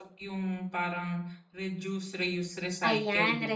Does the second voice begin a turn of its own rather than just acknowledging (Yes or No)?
Yes